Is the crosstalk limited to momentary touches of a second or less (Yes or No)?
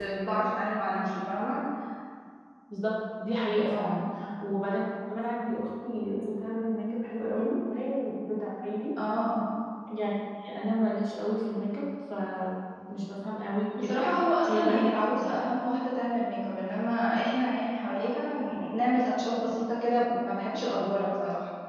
Yes